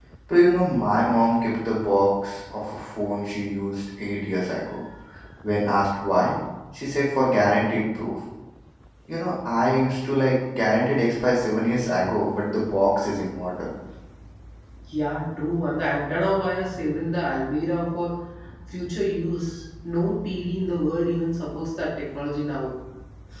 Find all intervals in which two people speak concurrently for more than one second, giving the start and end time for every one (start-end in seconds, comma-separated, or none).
none